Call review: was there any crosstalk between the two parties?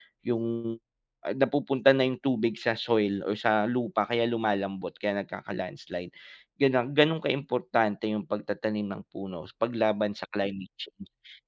No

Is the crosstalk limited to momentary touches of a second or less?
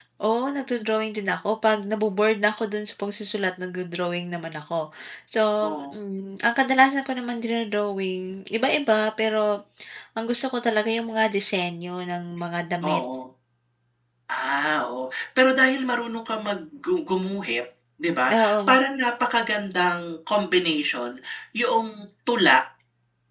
Yes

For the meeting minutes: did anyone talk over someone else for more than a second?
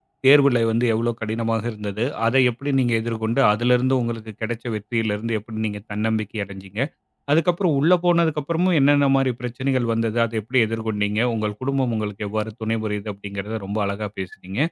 No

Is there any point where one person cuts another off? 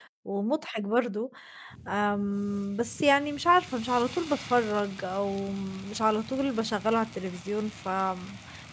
No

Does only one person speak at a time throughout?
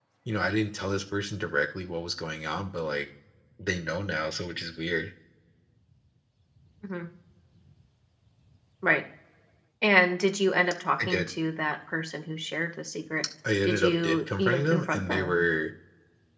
No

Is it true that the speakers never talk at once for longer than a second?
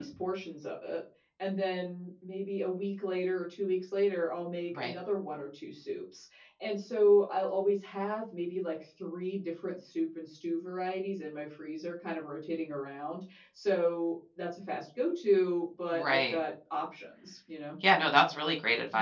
Yes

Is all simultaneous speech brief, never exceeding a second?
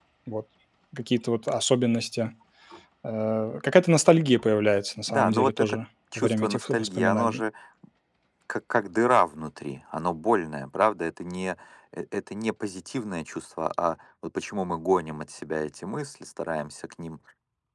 No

